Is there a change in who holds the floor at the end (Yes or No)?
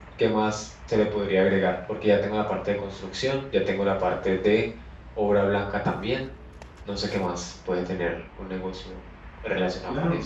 Yes